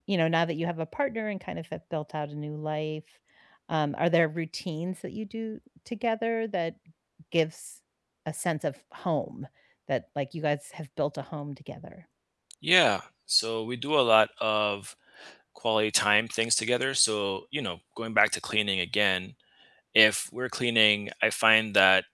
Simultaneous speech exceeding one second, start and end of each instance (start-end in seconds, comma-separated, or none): none